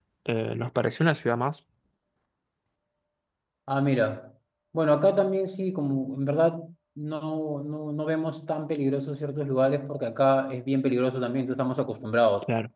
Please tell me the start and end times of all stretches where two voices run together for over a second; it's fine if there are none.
none

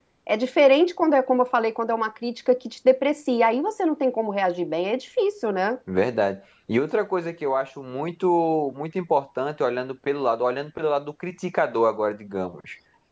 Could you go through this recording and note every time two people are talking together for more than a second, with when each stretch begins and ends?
none

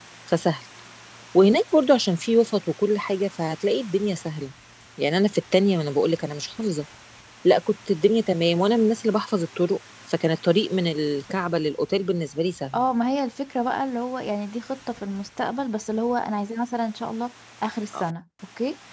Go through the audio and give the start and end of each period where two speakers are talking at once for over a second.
none

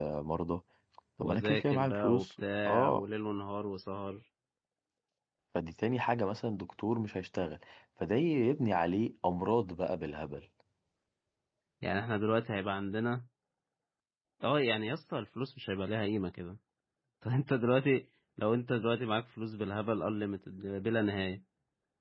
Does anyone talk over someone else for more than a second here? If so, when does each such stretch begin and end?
1.2-3.0

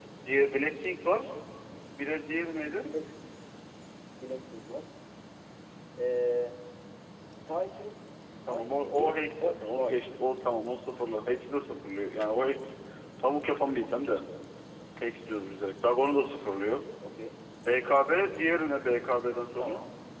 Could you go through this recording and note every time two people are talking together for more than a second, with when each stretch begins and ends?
8.5-10.0

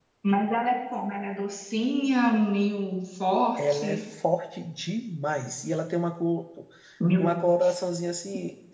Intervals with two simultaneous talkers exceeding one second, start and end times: none

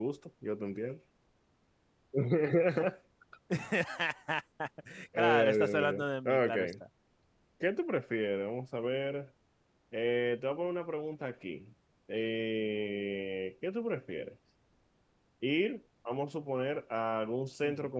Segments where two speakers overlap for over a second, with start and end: 5.2-6.7

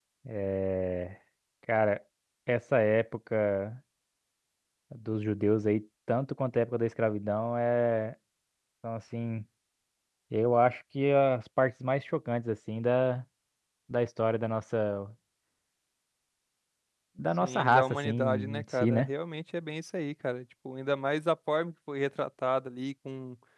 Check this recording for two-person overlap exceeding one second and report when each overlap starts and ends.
17.4-19.1

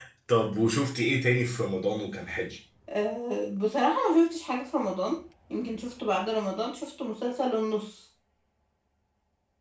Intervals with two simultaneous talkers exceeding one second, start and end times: none

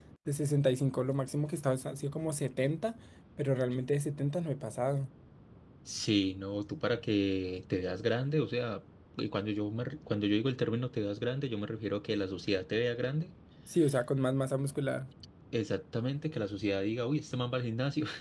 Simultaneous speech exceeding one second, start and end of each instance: none

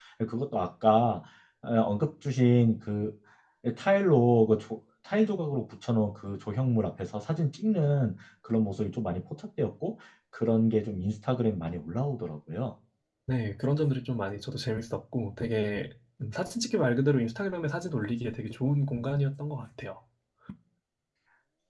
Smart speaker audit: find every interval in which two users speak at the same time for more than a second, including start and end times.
none

